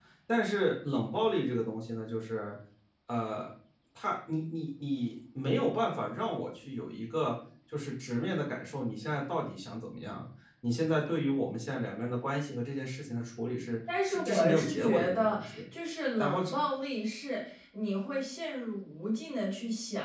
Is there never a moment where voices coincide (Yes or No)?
No